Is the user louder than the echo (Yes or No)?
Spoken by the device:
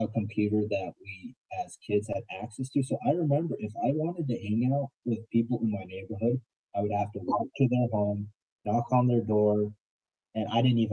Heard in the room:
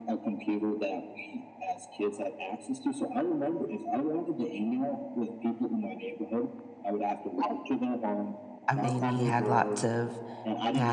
Yes